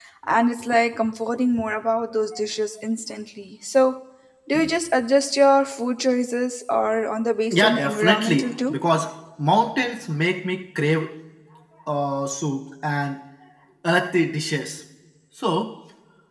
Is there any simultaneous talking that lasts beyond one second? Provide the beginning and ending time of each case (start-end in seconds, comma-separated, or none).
7.5-8.7